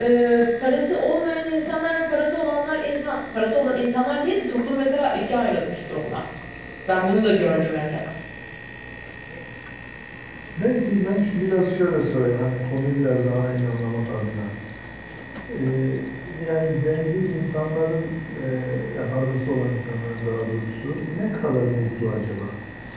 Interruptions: none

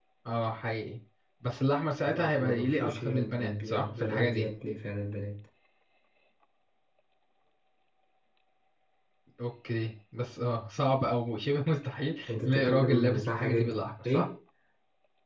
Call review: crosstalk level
present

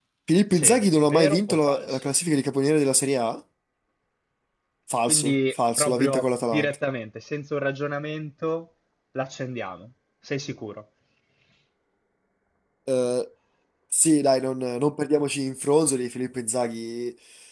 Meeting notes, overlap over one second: present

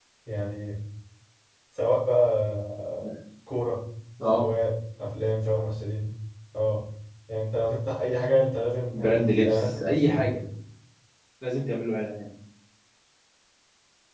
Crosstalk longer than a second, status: present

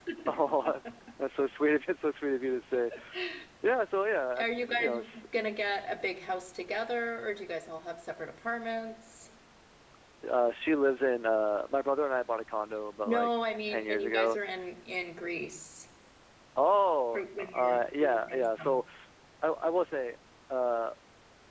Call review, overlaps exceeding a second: present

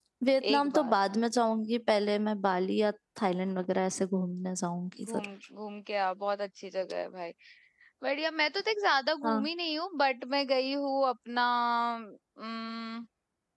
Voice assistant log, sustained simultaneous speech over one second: none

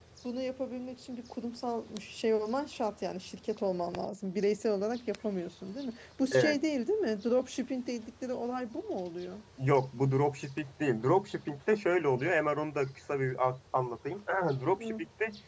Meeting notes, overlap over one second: none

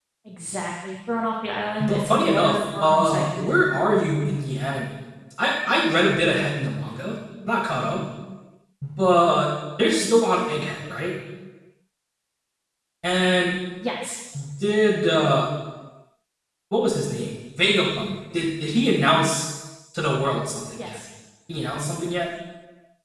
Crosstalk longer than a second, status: present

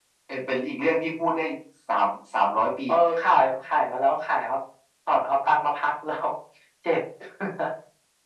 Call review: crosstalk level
none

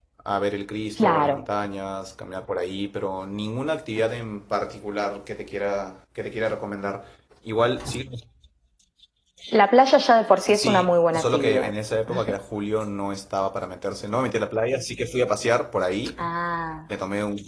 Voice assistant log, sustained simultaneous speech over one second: present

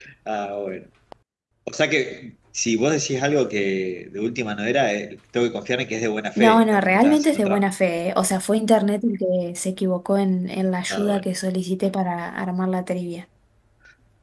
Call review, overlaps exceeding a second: present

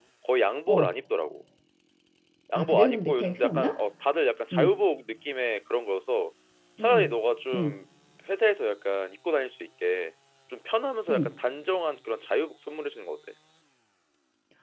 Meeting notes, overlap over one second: present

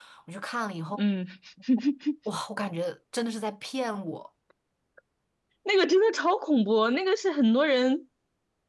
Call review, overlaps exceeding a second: none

